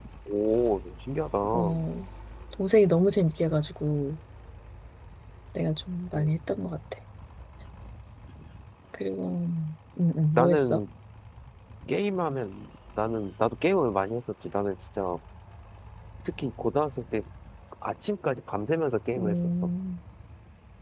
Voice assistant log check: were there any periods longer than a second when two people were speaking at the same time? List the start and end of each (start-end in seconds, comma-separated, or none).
none